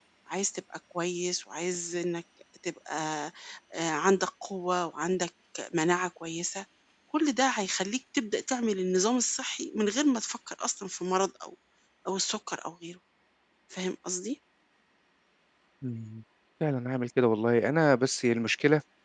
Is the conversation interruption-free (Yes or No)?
Yes